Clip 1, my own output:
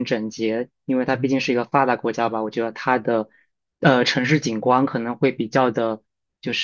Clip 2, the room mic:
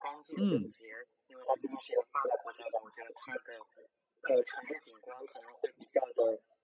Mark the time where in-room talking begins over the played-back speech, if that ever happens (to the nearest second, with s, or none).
0 s